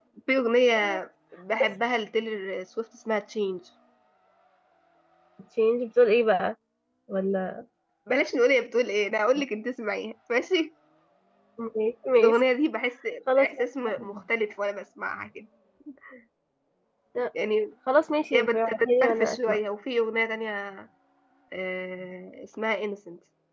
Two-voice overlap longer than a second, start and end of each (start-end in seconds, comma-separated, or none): 18.3-19.6